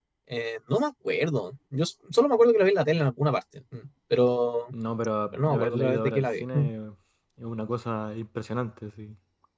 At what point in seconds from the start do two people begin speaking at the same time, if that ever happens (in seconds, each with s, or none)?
5.3 s